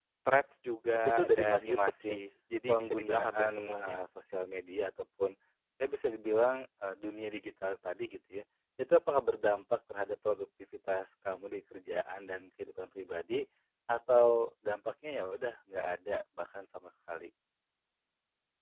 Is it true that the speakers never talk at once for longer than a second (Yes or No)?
No